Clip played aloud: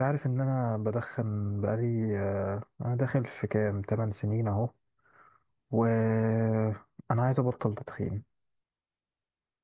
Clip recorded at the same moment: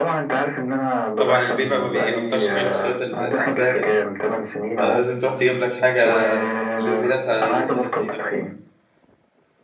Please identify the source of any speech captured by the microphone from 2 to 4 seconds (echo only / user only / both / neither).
both